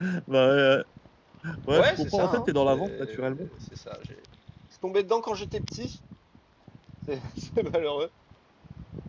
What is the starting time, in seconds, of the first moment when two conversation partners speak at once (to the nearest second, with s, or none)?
2 s